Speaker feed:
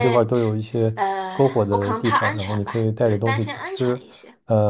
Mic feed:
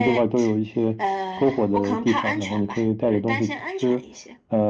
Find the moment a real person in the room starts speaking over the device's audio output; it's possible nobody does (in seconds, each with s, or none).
none